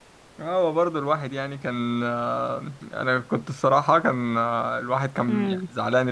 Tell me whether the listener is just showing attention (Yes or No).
Yes